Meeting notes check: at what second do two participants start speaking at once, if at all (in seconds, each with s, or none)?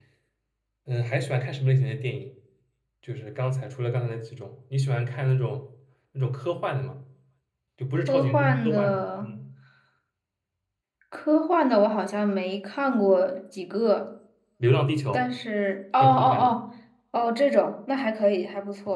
8.1 s